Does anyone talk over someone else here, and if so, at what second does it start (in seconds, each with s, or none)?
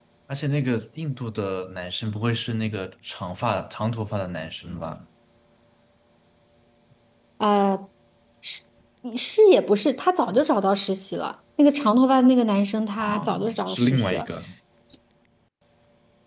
13.0 s